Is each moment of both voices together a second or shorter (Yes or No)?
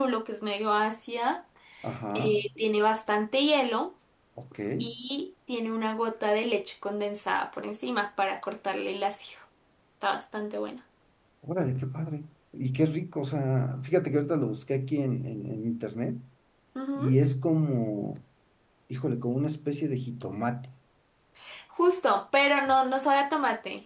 Yes